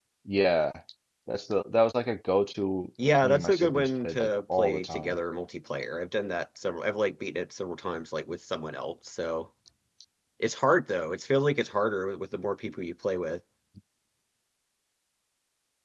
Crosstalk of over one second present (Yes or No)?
Yes